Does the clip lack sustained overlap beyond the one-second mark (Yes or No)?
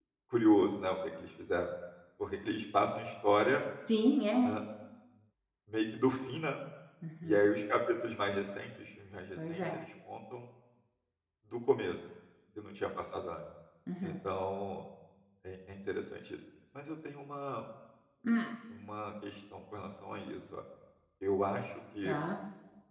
Yes